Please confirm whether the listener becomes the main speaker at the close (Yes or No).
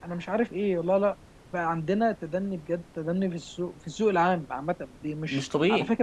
No